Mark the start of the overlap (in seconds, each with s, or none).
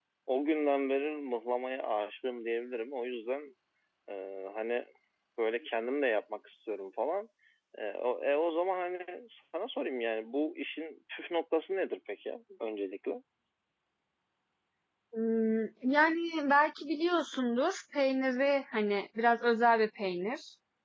none